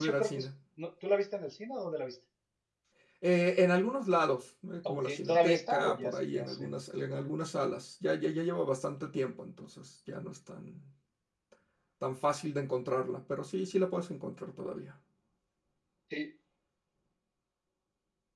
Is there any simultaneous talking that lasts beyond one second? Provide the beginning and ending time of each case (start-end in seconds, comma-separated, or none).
4.9-6.7